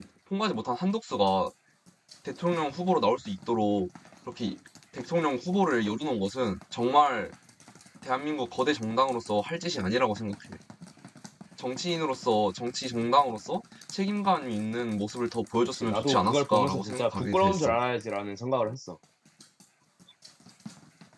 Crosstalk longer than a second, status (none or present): present